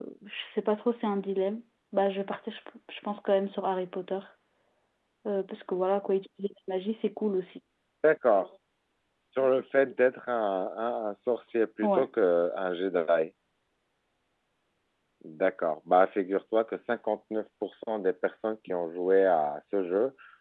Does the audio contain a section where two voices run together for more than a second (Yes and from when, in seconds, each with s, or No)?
No